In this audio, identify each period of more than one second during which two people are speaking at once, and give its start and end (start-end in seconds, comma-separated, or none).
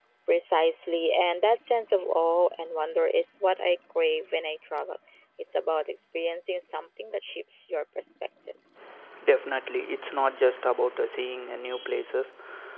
none